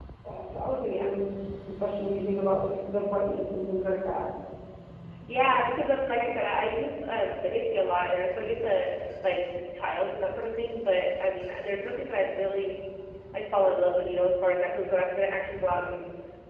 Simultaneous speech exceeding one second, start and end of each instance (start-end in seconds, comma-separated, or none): none